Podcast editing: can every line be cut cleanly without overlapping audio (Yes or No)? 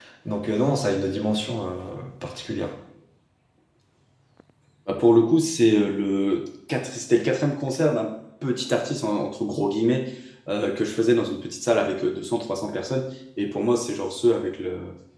Yes